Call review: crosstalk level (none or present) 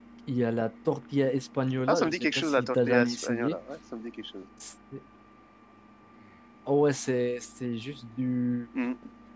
present